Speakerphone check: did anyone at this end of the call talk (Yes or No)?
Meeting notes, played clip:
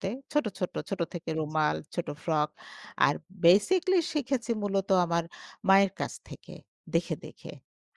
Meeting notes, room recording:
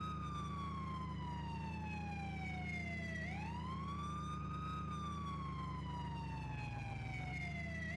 No